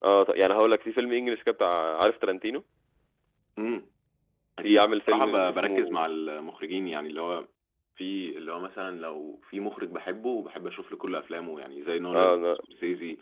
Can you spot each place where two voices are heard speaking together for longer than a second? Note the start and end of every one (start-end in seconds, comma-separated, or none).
4.6-6.0